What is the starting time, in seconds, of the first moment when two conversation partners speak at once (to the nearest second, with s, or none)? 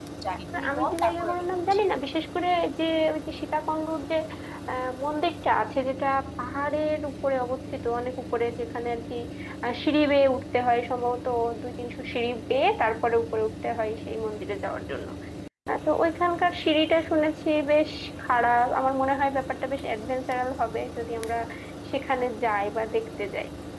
1 s